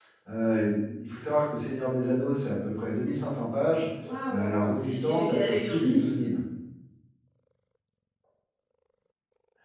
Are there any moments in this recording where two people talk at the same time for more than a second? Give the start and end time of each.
4.3-6.1

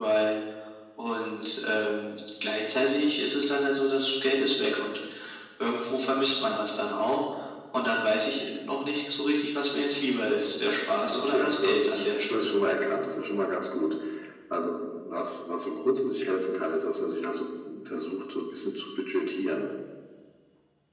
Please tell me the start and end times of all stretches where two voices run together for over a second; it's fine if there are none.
10.9-12.6

